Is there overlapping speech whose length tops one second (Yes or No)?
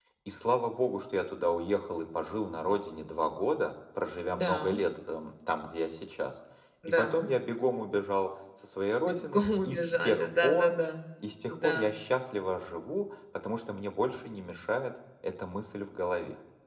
Yes